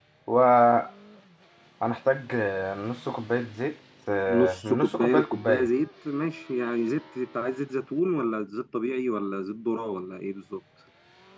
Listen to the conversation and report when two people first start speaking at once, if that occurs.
4 s

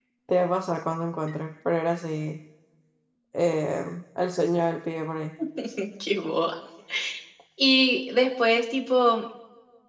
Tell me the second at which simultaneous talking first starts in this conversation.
none

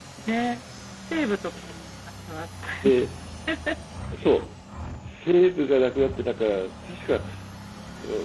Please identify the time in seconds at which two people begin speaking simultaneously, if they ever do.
none

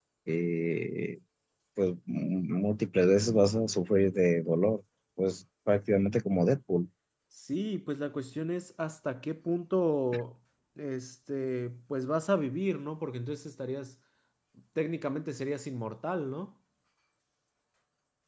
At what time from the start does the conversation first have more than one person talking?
none

